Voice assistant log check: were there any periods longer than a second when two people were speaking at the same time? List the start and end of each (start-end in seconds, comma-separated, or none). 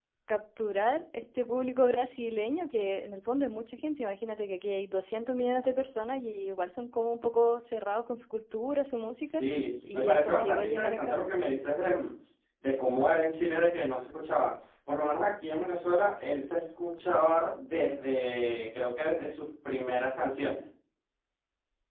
9.9-11.2